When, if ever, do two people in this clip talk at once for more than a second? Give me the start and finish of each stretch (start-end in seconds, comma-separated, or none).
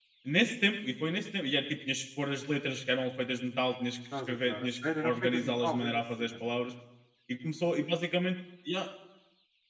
4.3-6.3